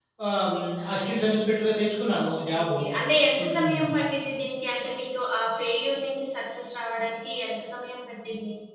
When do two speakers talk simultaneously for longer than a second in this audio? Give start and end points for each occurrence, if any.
none

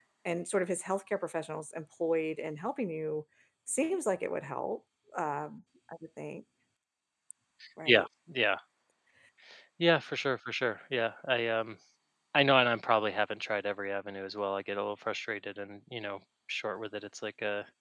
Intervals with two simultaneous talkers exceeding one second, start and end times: none

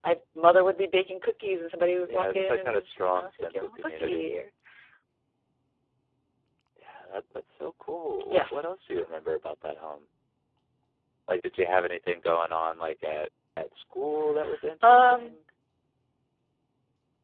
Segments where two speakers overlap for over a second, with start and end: 2.1-4.3

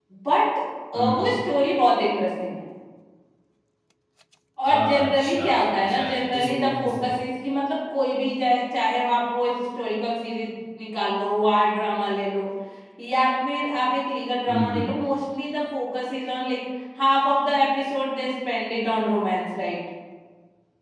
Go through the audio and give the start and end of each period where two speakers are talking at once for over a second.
4.6-7.1

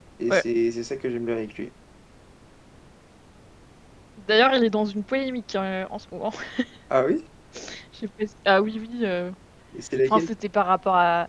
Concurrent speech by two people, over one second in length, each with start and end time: none

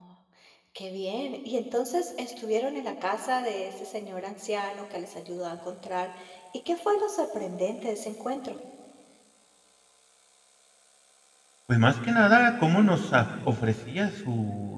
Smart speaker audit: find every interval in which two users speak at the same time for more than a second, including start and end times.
none

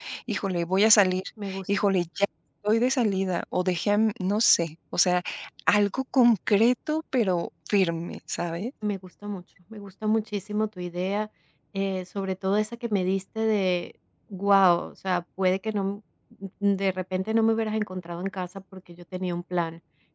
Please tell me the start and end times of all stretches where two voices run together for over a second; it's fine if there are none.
none

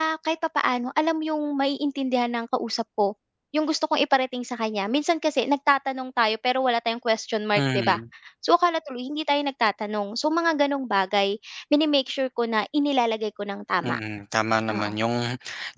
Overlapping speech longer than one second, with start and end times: none

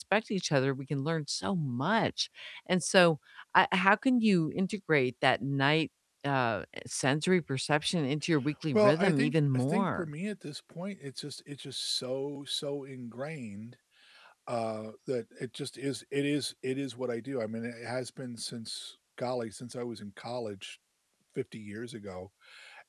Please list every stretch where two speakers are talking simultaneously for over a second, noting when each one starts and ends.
8.7-10.1

